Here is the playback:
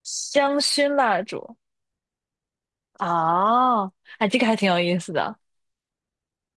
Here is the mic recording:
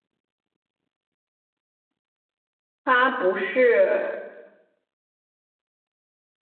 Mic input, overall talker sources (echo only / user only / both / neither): user only